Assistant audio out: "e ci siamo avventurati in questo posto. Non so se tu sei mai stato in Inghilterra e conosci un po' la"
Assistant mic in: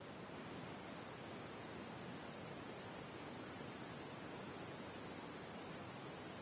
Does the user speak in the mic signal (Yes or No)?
No